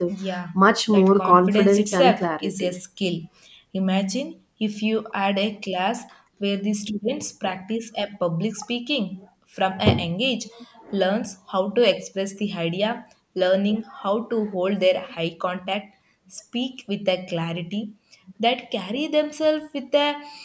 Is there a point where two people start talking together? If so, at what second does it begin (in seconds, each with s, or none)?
0.9 s